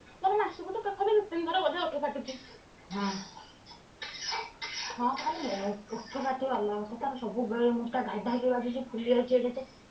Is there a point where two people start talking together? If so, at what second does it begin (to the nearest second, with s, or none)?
none